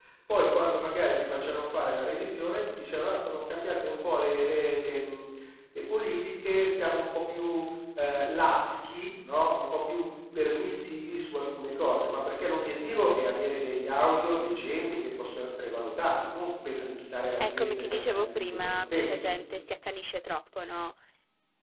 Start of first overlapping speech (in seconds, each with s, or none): 17.4 s